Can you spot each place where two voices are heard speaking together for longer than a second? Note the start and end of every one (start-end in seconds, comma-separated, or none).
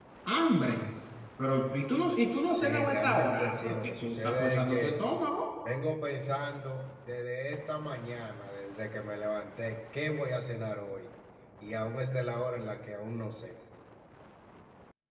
2.4-5.0